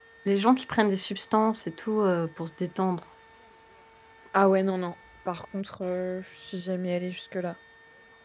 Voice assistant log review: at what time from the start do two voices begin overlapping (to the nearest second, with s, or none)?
none